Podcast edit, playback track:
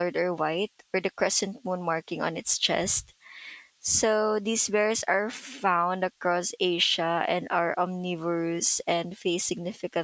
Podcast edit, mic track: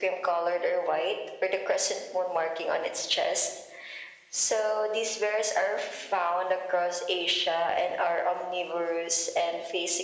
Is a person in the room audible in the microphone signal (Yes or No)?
No